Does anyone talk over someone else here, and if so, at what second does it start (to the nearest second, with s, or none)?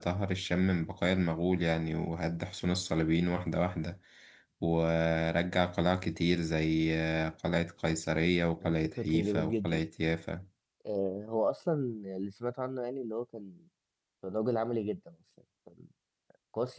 9 s